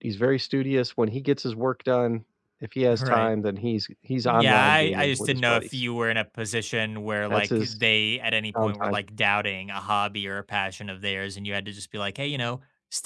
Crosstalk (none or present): present